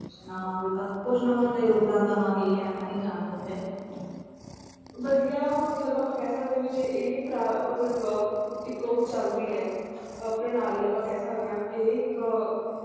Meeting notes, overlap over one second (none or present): none